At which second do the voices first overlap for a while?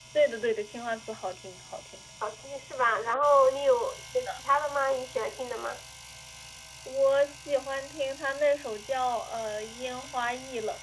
none

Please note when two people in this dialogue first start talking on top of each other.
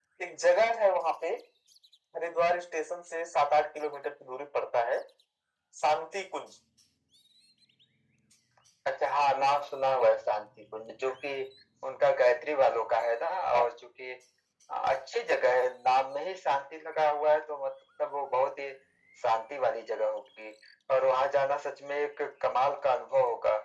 none

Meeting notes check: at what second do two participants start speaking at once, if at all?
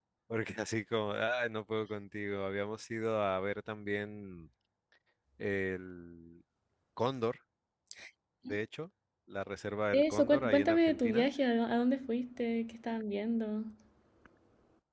9.9 s

